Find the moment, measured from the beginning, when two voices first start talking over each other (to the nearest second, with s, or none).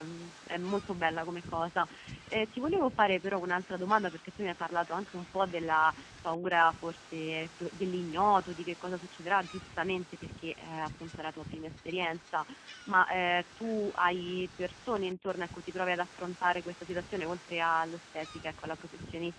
none